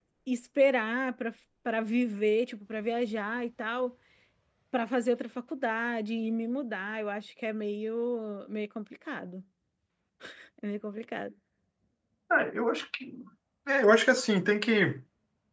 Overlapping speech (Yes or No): No